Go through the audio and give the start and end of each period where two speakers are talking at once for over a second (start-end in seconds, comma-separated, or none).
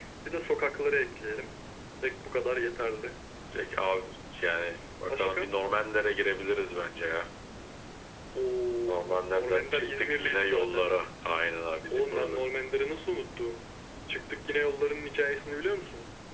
8.8-10.9